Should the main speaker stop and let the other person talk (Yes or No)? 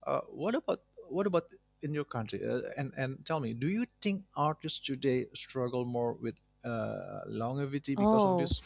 Yes